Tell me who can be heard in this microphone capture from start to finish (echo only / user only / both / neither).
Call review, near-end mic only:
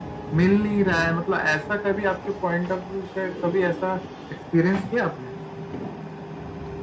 echo only